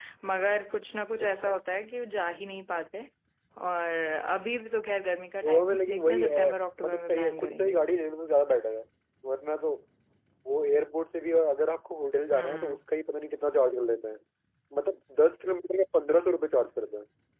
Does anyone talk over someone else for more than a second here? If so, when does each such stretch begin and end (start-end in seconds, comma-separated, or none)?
5.4-7.9